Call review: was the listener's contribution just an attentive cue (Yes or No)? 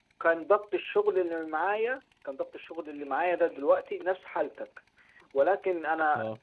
Yes